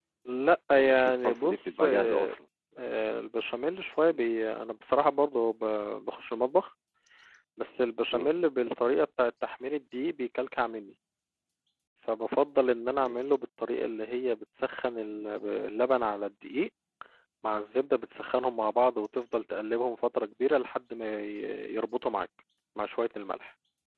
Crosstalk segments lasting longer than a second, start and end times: 0.7-2.3

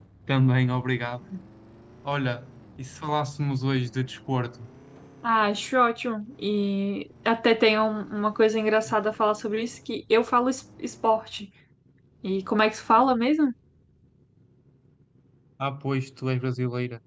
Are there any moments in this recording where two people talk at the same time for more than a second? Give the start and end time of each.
none

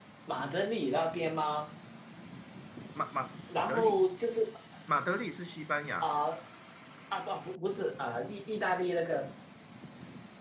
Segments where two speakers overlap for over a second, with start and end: none

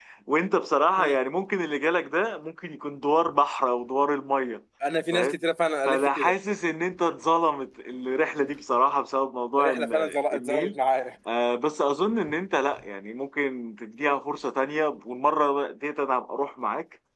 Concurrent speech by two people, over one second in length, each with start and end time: 9.6-10.8

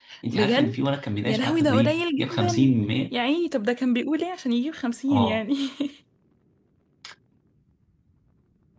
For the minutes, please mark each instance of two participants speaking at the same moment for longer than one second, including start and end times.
1.2-2.7

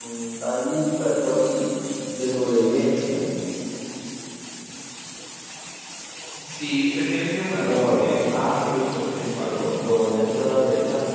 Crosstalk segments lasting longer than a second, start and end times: 7.5-9.7

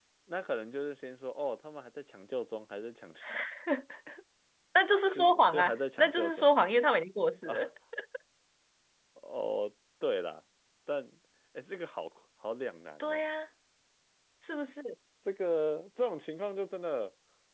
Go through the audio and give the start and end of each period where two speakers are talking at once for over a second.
5.2-6.5

